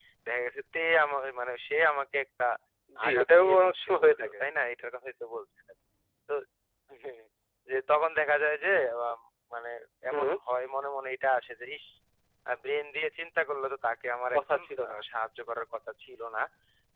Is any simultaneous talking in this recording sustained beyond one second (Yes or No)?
Yes